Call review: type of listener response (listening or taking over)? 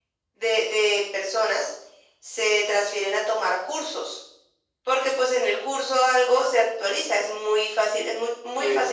listening